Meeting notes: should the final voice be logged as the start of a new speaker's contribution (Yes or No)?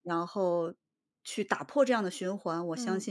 No